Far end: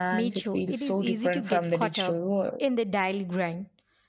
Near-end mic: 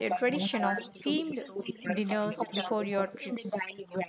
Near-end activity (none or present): present